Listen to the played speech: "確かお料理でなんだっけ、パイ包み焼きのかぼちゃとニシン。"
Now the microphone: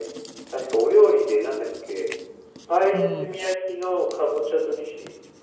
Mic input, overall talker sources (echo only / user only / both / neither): both